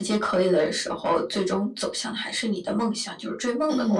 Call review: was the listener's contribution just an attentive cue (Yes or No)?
No